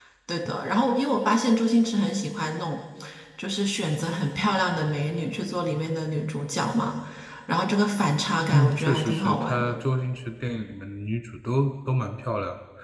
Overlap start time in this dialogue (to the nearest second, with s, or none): 8 s